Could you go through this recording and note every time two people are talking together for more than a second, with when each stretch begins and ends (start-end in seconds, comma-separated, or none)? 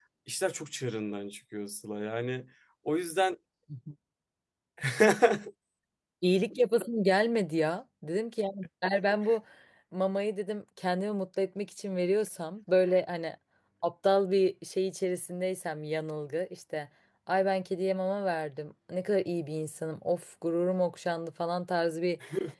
none